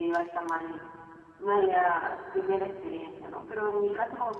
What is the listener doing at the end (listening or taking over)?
listening